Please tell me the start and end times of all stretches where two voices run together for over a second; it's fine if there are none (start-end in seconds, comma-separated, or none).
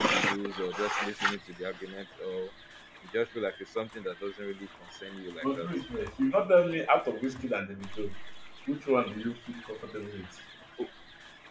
none